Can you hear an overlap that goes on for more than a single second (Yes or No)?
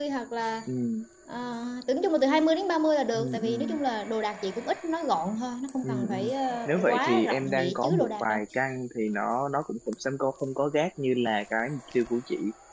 Yes